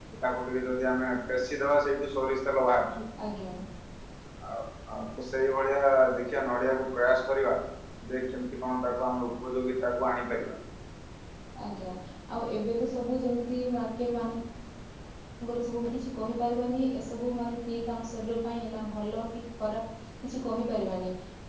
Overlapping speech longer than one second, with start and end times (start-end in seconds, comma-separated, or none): none